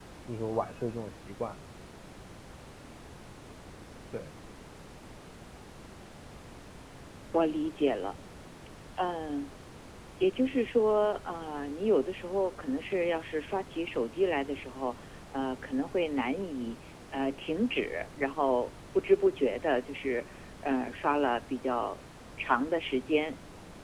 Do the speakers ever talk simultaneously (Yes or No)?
No